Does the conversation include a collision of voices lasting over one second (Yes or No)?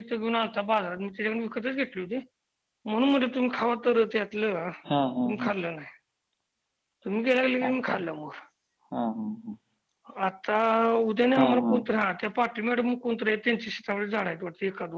No